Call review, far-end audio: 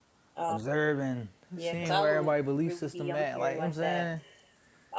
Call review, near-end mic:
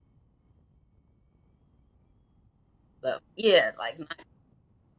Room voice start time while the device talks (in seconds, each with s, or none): 3.0 s